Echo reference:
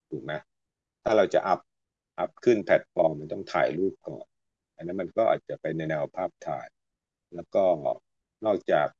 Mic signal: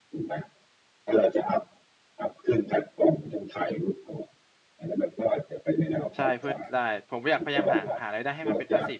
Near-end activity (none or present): present